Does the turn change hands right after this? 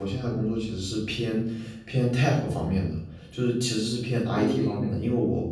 No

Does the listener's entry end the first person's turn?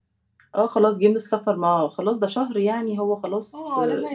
Yes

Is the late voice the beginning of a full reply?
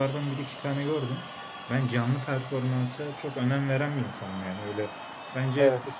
No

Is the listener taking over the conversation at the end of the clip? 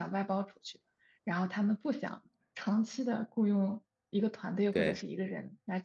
No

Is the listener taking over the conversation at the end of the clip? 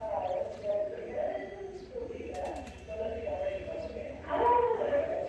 No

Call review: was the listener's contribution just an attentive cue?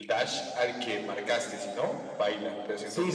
No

